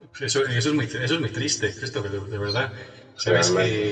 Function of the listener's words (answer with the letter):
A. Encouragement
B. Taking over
A